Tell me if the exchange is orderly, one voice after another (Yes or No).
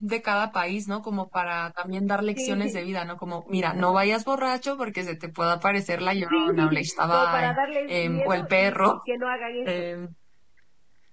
No